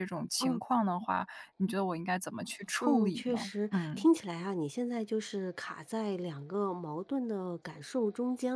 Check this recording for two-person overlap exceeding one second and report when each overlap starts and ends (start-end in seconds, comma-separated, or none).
2.8-4.1